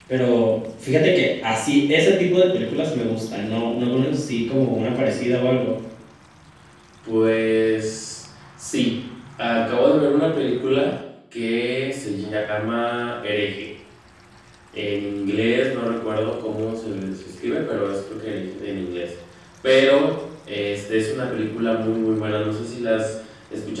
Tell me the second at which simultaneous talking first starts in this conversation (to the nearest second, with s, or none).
none